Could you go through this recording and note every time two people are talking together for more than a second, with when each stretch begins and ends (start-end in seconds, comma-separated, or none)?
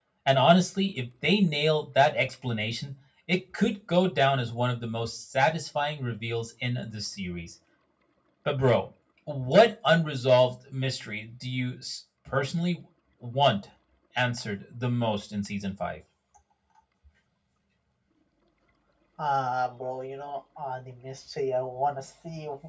none